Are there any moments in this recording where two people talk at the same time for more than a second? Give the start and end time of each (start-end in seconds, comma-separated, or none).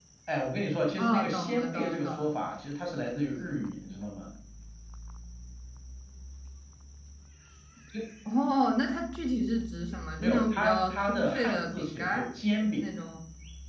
1.0-2.3, 10.2-12.3